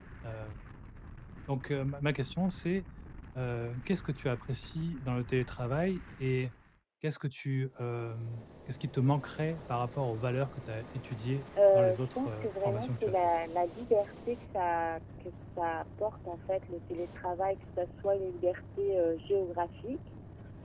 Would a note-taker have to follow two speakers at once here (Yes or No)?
Yes